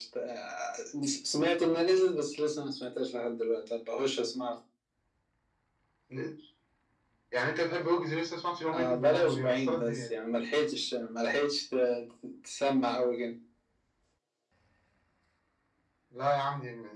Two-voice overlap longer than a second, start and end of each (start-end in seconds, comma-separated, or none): 8.7-10.1